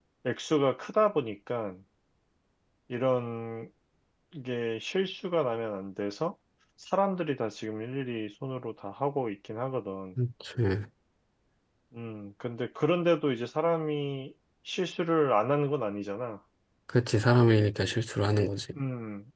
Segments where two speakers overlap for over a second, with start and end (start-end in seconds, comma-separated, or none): none